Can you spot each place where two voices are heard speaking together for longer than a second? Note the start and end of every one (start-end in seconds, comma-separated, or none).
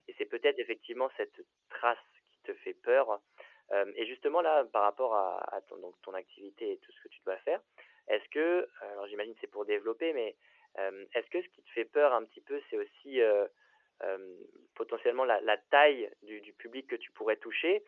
none